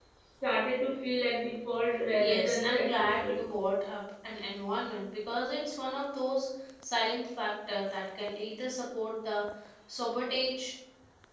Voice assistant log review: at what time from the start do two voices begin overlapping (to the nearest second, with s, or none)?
2 s